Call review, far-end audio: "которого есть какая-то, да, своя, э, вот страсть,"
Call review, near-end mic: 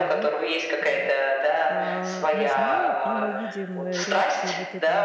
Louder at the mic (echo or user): echo